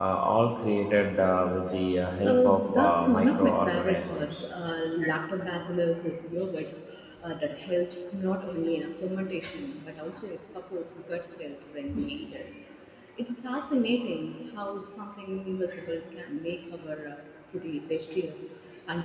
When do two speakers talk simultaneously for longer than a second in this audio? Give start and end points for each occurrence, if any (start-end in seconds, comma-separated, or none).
2.2-4.4